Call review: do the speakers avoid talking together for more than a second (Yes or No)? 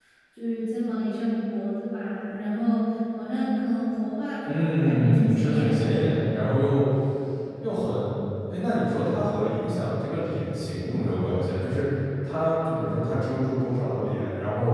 No